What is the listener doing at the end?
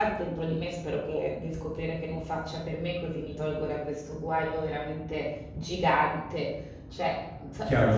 taking over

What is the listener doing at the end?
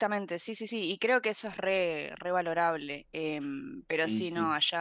listening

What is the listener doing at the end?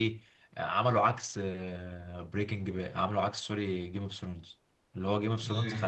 listening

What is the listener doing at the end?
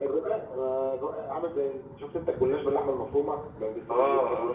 taking over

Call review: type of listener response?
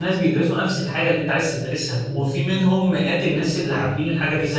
listening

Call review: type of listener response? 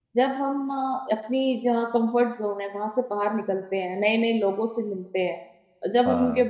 listening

